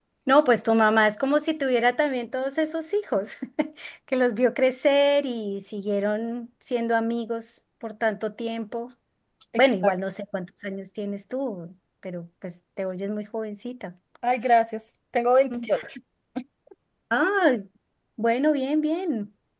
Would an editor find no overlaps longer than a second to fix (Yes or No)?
Yes